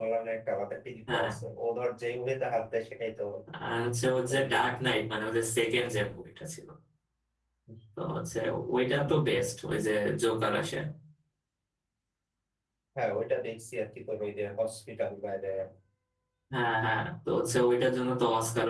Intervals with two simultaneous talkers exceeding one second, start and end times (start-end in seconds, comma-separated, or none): none